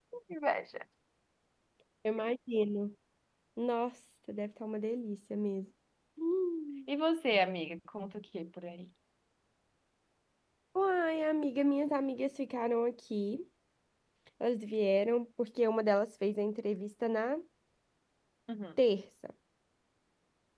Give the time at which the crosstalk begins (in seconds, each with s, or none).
none